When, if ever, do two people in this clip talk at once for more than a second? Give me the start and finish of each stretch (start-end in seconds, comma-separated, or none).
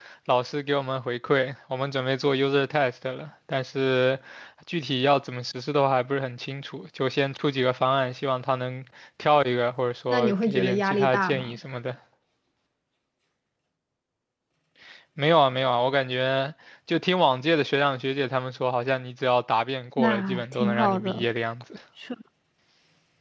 10.1-11.6, 20.0-21.3